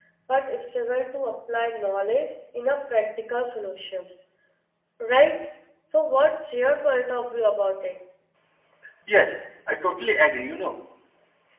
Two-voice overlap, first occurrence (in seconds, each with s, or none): none